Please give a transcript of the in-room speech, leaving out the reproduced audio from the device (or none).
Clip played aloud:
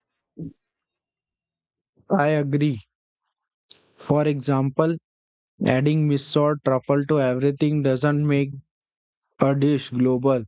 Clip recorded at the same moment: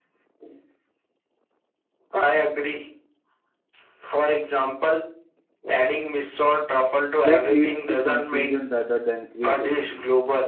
That leads to confusion rather than creativity.